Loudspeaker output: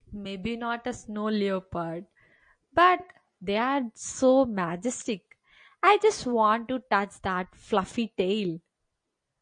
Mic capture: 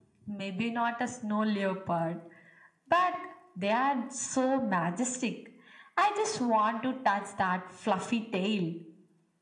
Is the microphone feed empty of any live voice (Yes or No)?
Yes